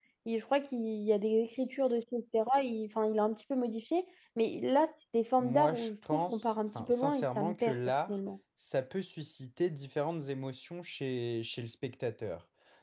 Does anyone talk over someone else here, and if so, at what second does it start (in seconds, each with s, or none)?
5.4 s